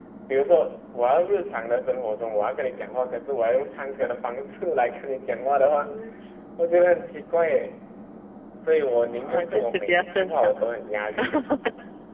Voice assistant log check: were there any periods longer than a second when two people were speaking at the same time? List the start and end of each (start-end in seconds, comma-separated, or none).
9.1-10.5